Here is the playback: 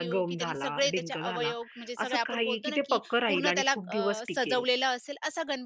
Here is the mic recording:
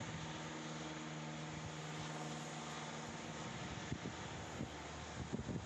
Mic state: neither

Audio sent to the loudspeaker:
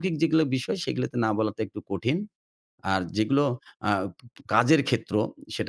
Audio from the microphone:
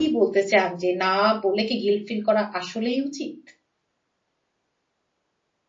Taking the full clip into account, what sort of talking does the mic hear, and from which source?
user only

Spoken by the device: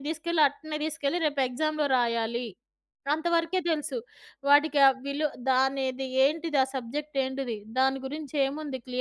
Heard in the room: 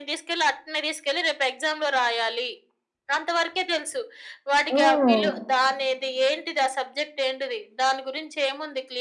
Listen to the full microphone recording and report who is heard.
both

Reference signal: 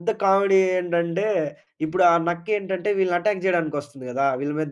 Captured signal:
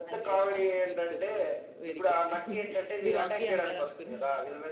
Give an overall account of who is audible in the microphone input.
both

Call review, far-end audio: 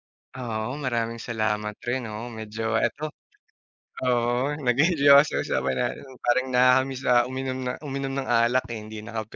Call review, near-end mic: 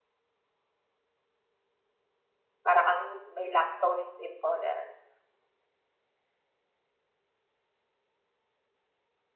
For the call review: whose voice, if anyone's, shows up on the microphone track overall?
user only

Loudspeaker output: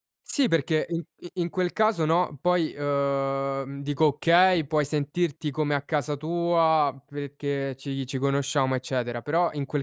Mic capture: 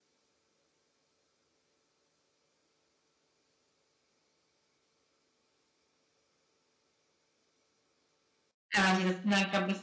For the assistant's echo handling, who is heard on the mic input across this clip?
user only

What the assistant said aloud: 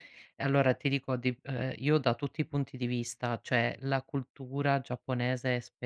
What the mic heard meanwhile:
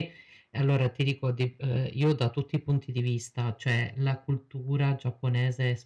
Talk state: echo only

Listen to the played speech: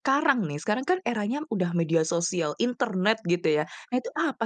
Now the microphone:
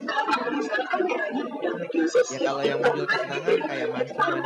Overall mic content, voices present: both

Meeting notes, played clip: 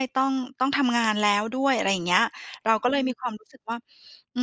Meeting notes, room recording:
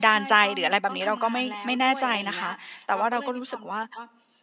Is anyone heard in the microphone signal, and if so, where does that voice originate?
both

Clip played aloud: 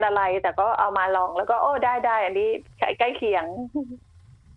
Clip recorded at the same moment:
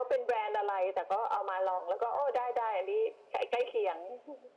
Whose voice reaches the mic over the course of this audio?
echo only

